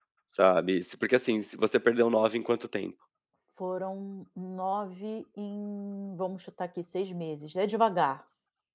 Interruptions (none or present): none